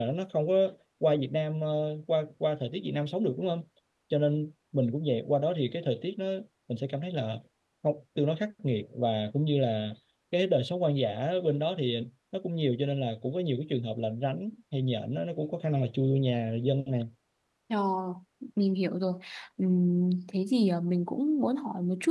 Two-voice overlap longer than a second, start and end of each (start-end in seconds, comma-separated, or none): none